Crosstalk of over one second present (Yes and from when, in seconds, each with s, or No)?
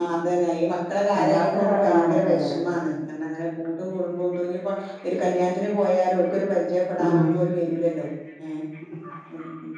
Yes, from 1.2 s